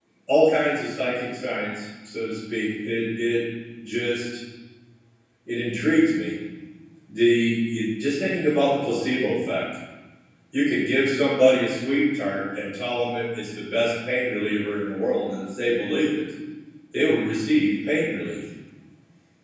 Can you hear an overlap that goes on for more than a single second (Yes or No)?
No